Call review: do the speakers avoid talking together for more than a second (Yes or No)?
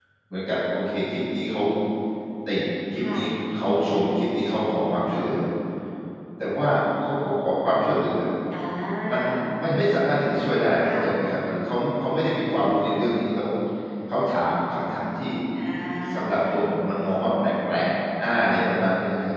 Yes